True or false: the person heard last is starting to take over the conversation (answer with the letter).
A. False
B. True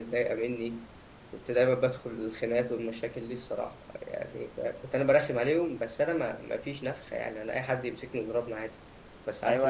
B